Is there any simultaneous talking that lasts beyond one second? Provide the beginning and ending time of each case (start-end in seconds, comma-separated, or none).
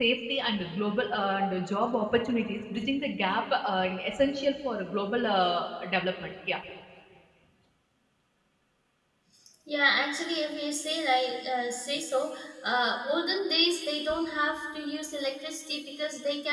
none